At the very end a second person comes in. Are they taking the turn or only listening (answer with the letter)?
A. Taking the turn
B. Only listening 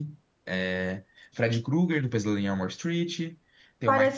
A